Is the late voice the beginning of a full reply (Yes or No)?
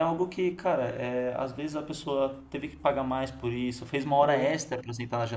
No